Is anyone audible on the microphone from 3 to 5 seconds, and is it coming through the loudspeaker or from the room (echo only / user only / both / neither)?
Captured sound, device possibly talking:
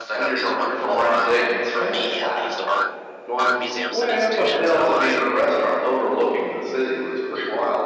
both